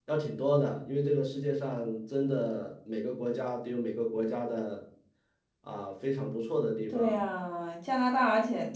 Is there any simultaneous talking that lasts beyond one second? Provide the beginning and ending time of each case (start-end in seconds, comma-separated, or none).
none